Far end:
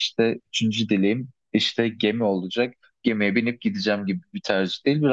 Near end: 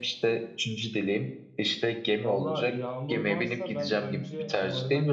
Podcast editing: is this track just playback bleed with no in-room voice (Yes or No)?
No